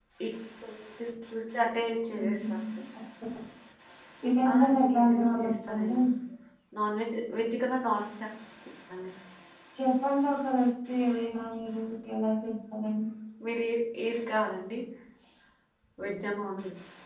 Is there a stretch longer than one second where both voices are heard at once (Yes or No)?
Yes